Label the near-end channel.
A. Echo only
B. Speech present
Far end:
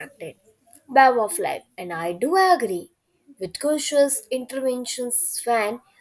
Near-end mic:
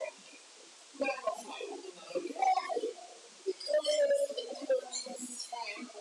A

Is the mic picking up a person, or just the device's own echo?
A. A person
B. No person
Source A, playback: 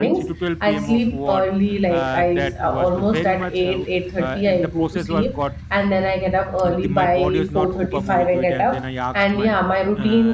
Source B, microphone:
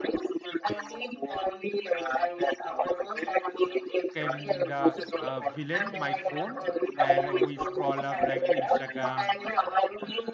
A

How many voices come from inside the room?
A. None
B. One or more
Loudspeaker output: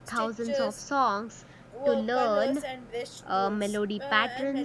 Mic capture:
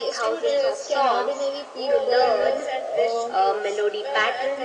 B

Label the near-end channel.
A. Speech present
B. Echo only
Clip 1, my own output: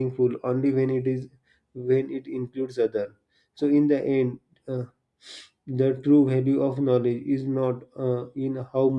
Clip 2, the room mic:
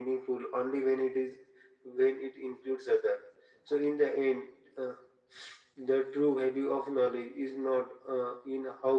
B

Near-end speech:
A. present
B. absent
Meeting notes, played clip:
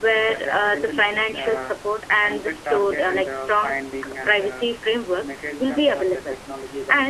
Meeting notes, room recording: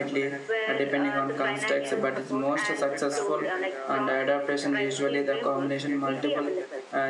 A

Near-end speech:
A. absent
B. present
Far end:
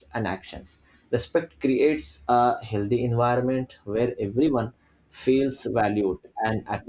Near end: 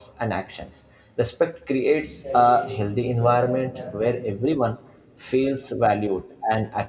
B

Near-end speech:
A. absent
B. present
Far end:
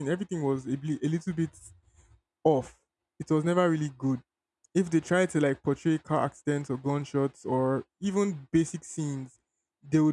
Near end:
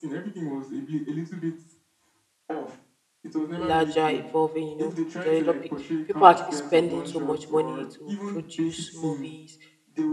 B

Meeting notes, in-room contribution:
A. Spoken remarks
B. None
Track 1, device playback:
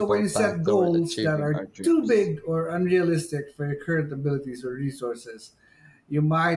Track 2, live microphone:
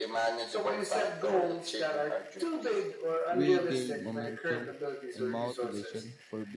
A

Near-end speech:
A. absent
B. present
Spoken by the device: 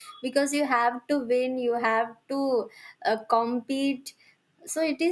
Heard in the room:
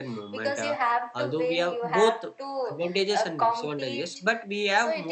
B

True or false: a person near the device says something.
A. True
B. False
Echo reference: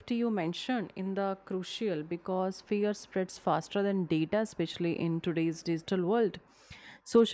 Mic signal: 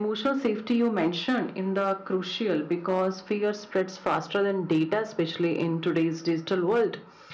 B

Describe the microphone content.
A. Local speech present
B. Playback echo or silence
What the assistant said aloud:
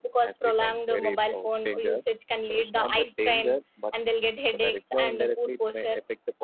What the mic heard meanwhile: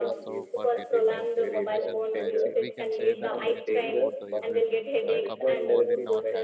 A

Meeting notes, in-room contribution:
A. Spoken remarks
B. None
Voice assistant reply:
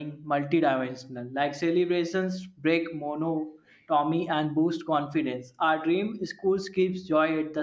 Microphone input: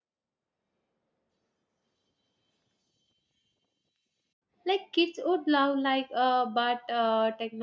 A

